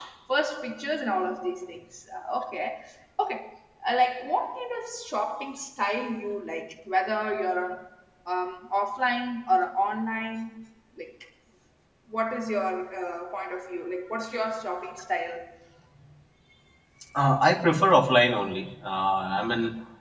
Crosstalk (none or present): none